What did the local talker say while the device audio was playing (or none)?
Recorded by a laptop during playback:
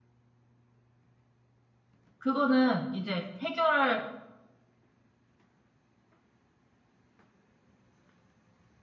그거는 이제 해결할